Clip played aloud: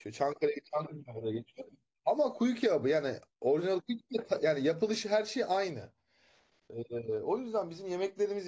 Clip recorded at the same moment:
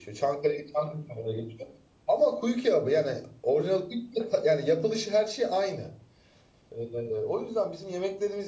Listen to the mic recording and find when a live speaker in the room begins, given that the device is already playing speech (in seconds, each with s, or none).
none